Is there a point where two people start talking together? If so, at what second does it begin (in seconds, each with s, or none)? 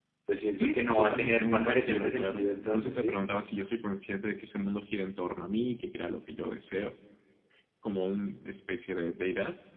0.6 s